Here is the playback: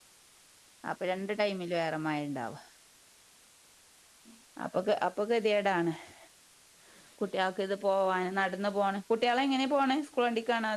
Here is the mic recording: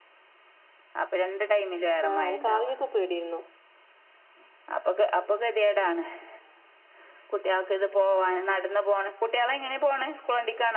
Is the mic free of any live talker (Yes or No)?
No